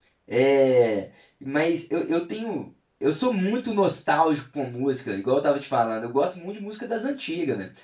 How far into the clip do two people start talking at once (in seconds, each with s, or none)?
none